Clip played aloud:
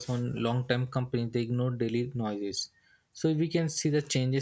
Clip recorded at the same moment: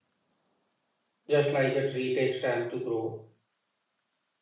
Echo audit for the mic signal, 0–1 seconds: neither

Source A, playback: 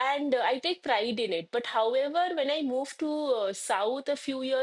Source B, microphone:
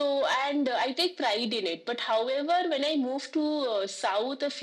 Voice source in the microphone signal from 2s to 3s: echo only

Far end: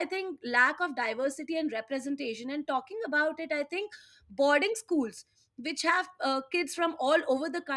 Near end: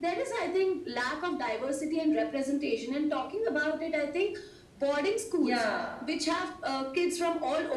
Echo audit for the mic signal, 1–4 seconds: echo only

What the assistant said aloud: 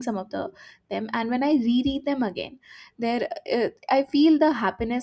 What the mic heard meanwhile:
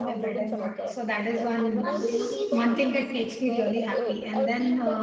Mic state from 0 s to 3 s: both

